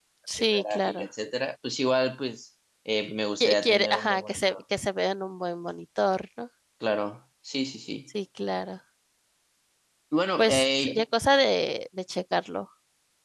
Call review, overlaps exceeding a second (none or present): present